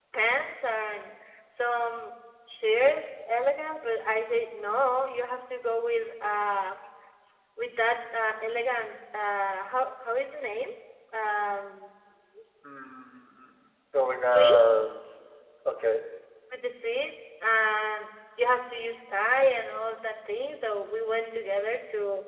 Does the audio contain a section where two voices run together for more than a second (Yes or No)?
No